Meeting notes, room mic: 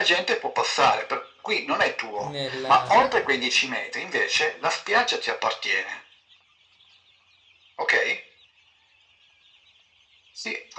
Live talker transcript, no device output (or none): nella...